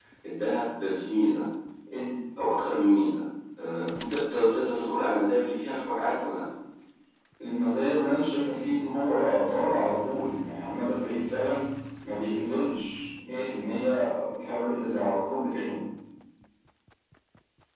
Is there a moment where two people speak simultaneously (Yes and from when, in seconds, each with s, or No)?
No